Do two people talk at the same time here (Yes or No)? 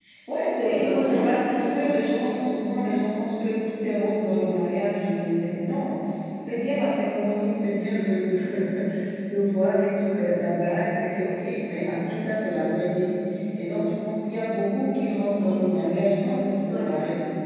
Yes